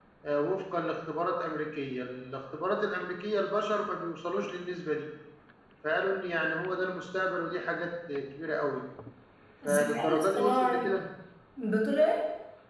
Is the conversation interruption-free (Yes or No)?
No